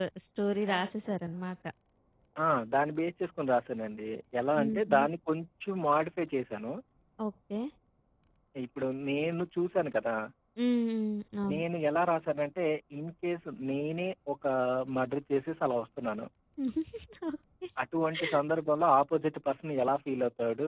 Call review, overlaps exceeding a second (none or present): none